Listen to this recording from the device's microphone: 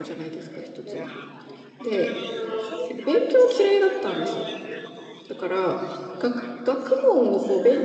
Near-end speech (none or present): present